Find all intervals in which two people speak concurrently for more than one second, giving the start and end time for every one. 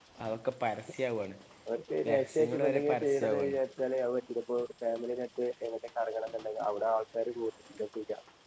2.1-3.6

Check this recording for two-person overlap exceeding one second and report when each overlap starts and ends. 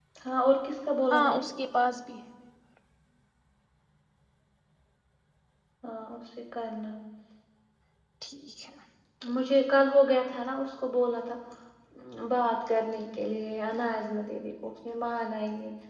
none

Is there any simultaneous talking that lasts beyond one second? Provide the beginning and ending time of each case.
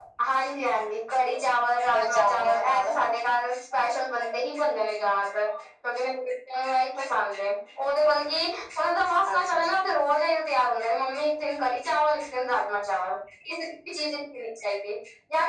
1.9-3.2

